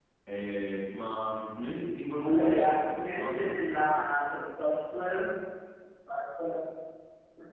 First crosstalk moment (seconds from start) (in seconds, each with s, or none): 2.2 s